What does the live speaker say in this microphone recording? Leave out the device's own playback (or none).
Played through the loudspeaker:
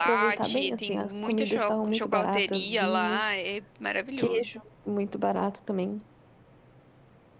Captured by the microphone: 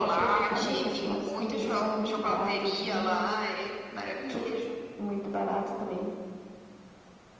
Ilha Comprida.